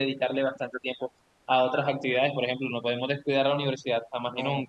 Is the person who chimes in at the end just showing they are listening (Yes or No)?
No